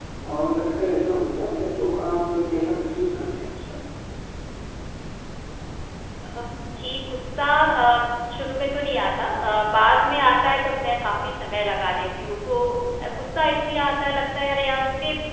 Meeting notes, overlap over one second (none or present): none